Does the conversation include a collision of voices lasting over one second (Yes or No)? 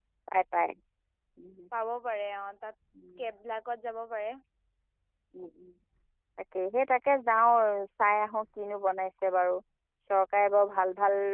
No